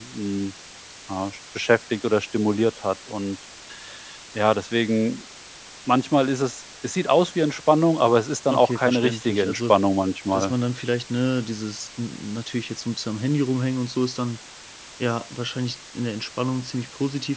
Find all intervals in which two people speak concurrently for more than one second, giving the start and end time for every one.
8.5-9.7

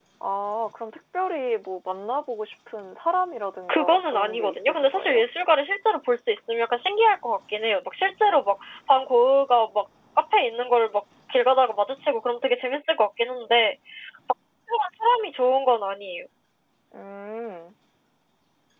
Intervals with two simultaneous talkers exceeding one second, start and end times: 3.7-5.2

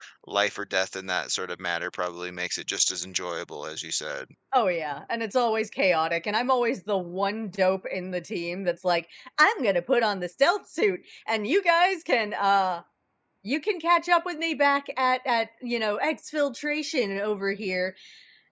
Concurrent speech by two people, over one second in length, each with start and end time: none

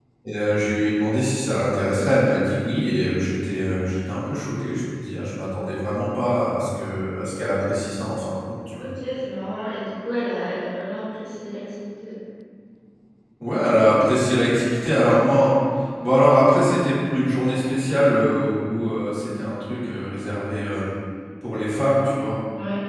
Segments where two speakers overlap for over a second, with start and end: none

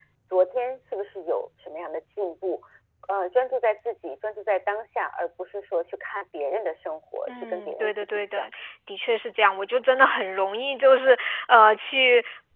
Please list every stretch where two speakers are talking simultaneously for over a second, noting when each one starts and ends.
7.3-8.5

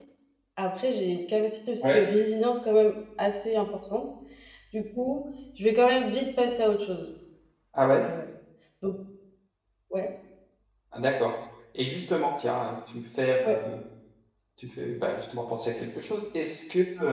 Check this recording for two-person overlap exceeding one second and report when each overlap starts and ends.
none

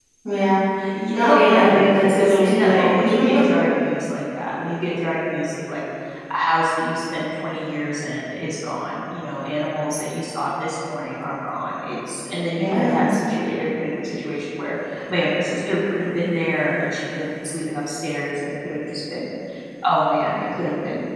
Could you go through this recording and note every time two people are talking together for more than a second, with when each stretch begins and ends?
1.1-3.0

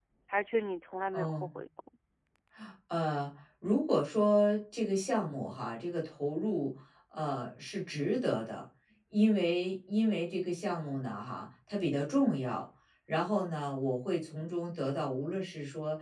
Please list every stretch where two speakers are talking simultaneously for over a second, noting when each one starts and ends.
none

